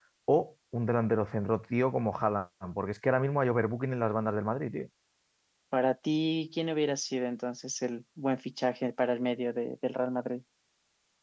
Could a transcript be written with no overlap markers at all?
Yes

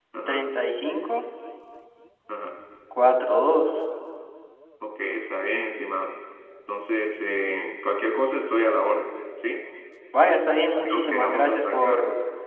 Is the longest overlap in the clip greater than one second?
Yes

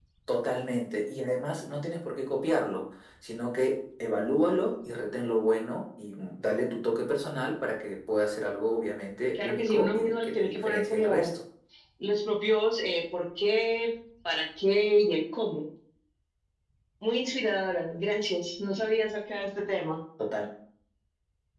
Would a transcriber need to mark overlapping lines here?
Yes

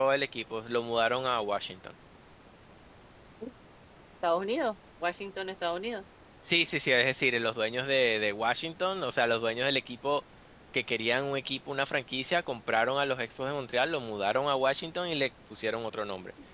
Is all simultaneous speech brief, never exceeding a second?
Yes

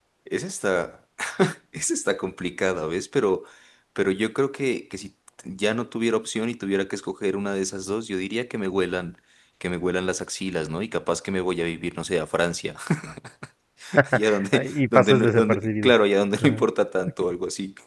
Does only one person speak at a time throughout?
No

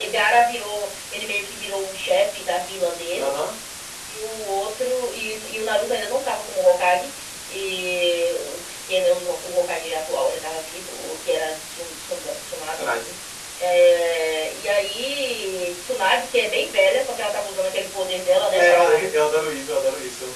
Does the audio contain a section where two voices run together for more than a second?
No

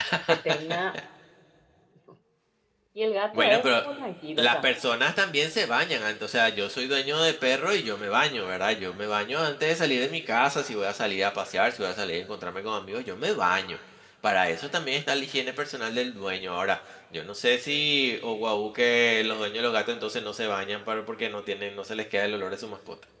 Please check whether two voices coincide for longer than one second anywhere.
No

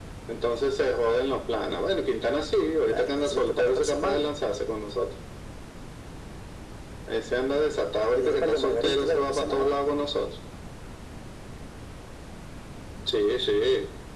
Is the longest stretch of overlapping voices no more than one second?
No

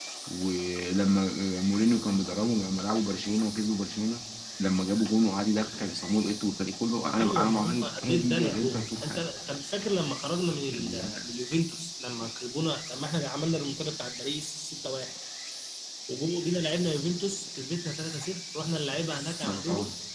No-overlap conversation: No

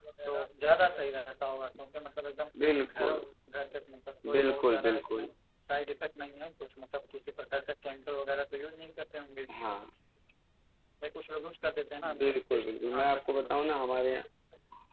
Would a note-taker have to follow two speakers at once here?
Yes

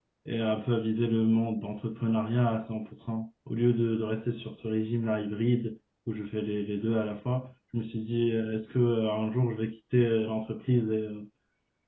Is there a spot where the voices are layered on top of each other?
No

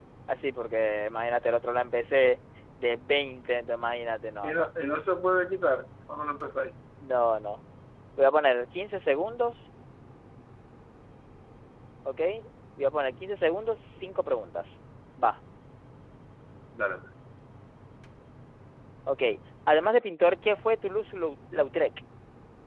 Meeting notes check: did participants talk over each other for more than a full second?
No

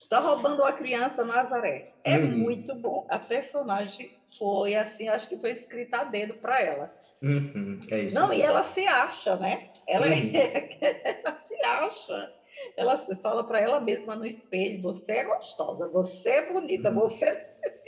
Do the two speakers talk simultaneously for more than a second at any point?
No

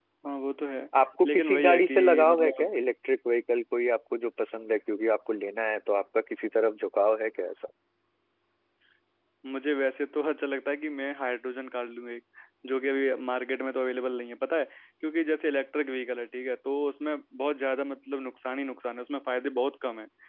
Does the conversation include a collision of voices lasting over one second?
Yes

